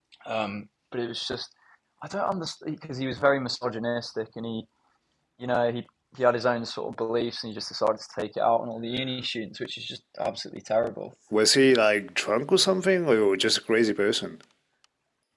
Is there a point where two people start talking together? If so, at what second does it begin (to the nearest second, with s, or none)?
none